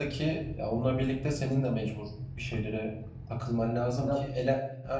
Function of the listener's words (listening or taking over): listening